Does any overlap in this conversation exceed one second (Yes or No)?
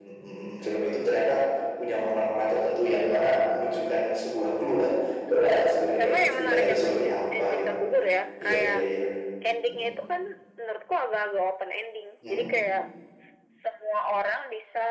Yes